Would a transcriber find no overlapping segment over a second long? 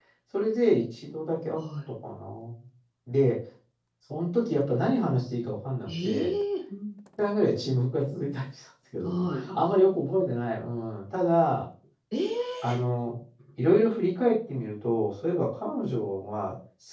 Yes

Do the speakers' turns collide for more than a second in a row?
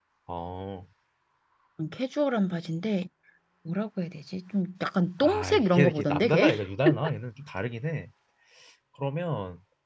Yes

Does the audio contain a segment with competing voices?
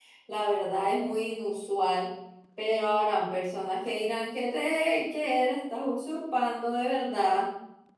No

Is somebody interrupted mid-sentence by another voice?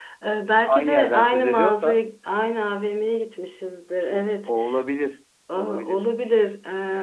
Yes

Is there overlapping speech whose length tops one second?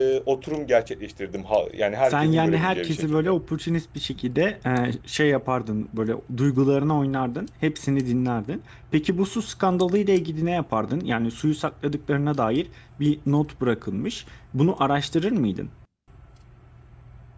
Yes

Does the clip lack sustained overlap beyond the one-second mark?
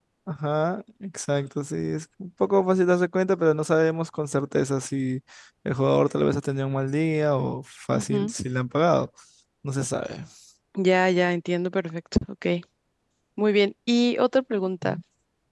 Yes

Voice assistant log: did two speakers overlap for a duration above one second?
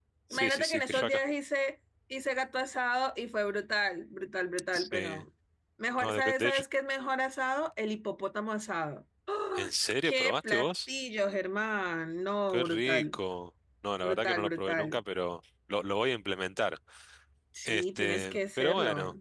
Yes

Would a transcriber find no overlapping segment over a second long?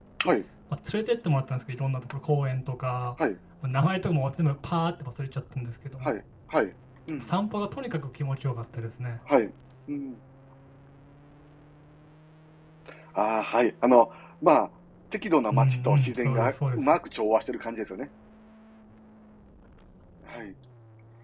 No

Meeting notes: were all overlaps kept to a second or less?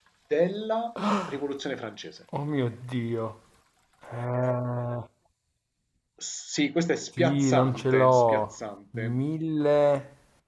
No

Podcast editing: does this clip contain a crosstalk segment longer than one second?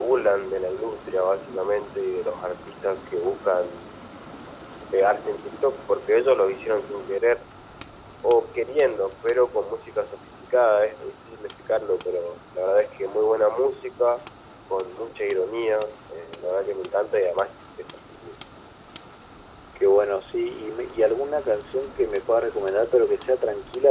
No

